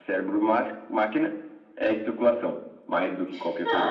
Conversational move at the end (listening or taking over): taking over